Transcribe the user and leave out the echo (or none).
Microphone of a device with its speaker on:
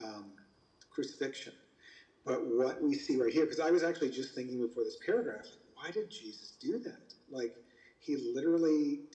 none